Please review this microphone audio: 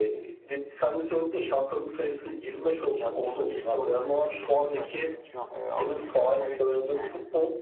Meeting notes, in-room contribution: present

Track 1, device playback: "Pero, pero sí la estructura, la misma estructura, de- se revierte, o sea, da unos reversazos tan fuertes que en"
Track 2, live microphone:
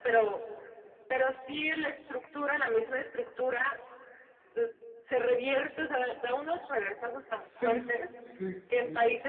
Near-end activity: present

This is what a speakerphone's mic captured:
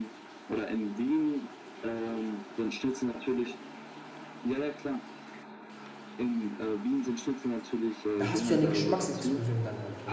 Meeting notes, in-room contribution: present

